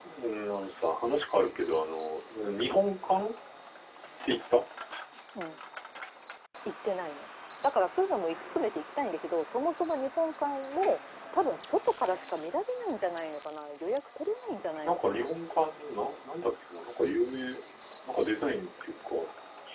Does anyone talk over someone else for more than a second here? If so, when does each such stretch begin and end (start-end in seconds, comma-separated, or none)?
none